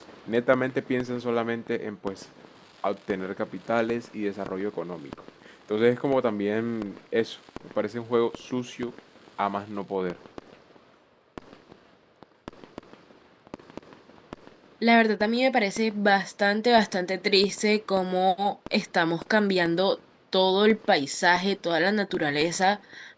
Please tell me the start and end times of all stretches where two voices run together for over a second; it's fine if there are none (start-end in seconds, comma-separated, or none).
none